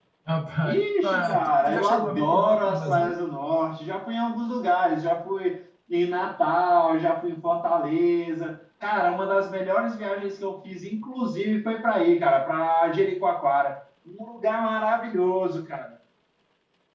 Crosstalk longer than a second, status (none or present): present